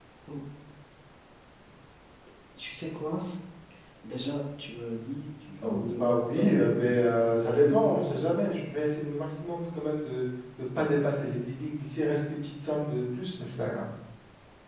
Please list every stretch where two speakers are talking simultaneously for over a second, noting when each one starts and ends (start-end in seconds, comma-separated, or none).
5.6-8.4